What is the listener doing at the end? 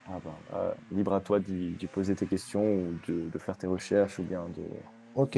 taking over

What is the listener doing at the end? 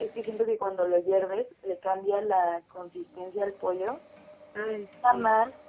listening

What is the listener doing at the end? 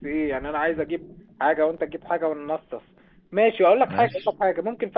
listening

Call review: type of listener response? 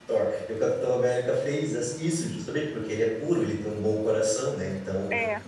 listening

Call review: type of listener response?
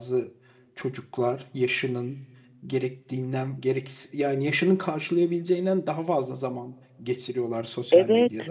taking over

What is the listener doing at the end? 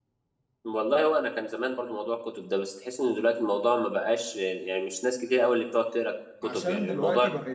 taking over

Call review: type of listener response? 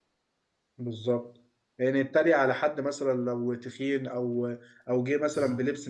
listening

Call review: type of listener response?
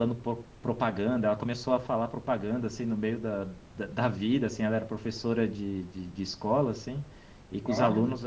listening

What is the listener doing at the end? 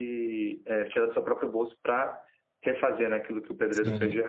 taking over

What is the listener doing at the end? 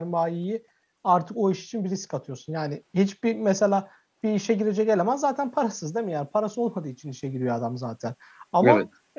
listening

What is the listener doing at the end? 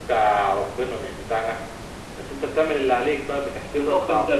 taking over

